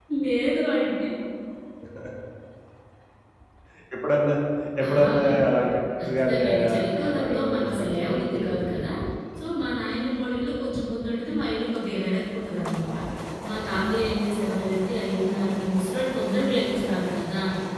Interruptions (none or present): present